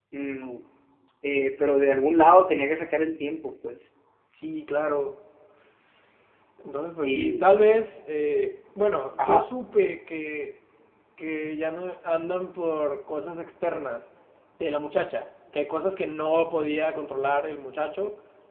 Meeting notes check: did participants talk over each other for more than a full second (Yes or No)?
No